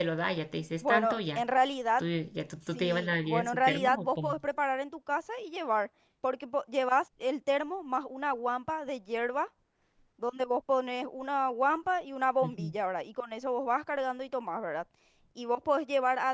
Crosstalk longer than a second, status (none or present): present